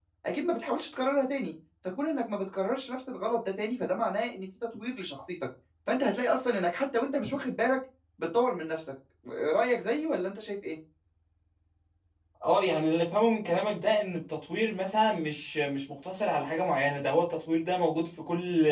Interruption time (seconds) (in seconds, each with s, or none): none